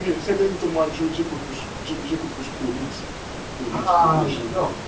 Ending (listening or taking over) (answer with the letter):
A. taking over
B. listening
A